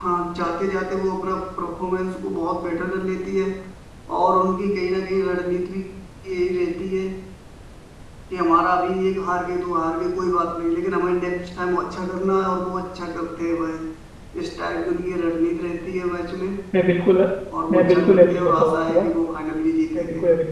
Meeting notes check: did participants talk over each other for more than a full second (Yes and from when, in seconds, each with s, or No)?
Yes, from 17.7 s